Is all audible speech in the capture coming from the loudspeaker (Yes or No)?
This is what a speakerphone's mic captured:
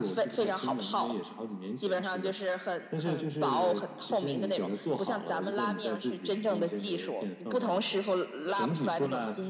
Yes